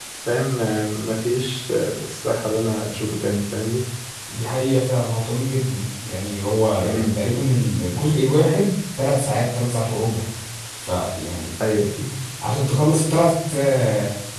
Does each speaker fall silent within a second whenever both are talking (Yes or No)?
Yes